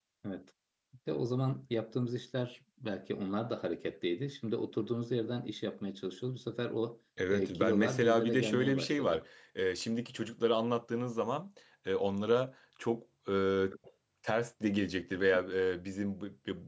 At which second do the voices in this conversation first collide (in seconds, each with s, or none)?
7.2 s